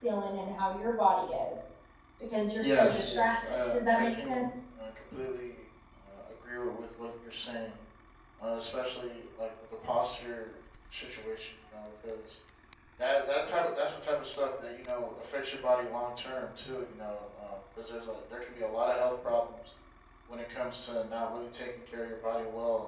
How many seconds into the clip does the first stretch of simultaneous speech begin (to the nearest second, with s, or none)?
3 s